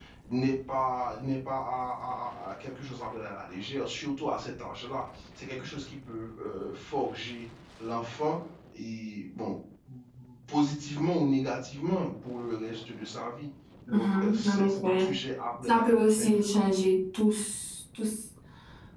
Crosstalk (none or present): present